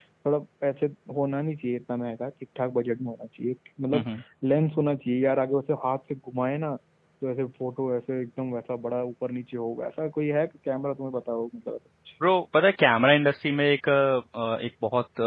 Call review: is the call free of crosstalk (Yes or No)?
Yes